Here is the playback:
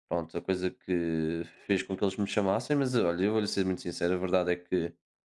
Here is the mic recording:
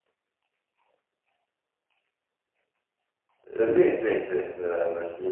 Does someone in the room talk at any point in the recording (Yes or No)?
Yes